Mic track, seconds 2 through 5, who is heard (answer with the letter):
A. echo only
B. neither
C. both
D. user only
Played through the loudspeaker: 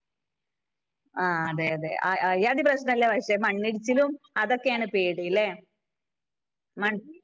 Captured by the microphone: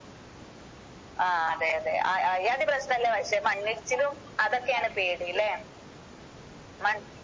A